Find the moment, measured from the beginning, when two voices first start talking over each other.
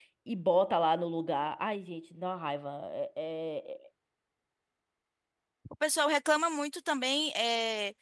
none

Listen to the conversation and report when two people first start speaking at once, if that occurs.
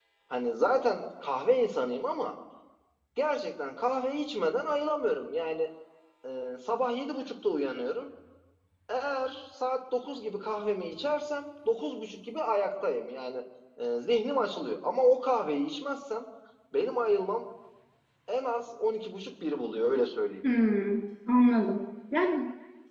none

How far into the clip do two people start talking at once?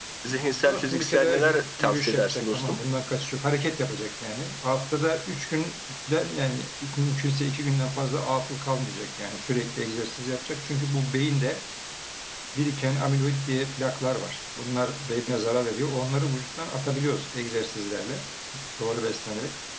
0.6 s

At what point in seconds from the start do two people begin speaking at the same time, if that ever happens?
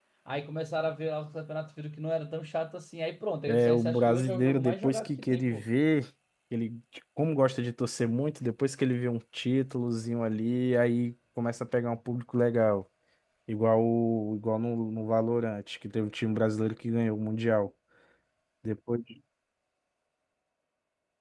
3.5 s

